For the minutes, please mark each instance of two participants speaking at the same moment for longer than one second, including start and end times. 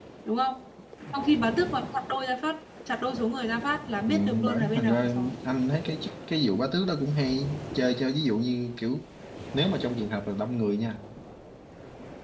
4.1-5.3

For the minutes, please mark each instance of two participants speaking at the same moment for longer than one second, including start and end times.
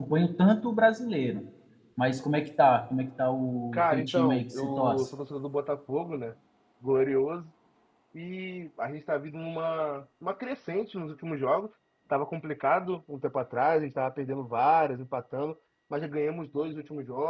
3.7-5.1

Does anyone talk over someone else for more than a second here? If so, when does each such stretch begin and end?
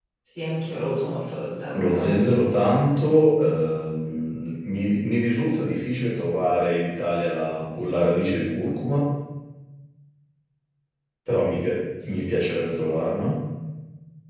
none

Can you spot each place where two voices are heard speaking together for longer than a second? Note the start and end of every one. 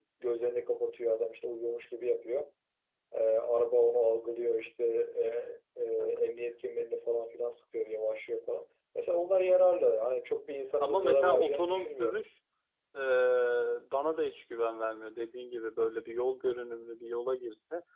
10.8-12.2

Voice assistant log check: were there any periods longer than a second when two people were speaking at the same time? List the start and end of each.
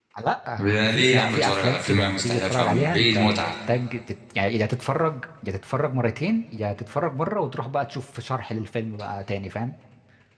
0.8-3.5

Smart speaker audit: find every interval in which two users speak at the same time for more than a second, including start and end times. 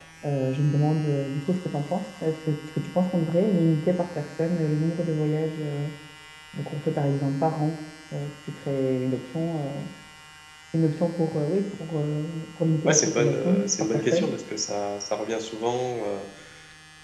12.9-14.3

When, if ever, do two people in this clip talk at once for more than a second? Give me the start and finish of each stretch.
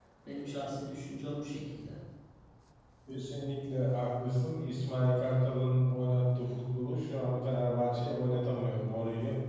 none

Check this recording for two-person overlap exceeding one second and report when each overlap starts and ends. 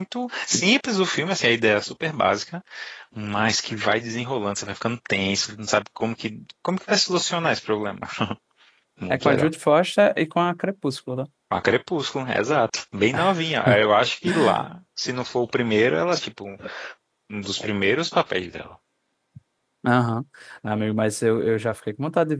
none

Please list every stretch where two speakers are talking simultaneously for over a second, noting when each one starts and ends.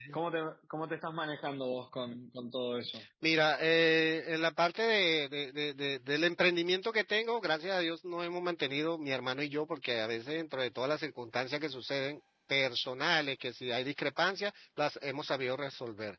none

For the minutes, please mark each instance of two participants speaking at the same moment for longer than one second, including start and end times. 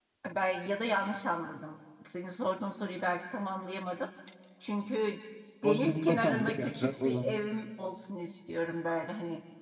5.6-7.4

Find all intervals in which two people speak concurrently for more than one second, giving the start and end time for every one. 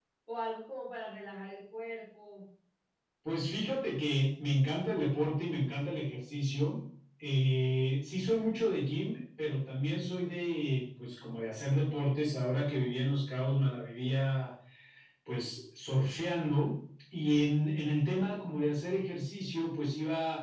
none

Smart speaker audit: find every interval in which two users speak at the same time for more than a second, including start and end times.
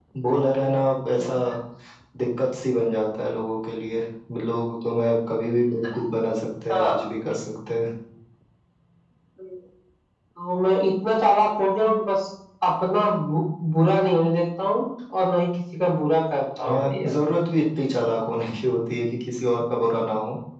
none

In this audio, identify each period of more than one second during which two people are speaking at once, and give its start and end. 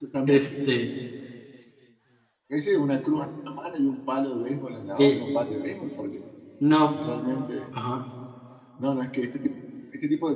none

